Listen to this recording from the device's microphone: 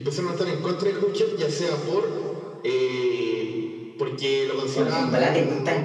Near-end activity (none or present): present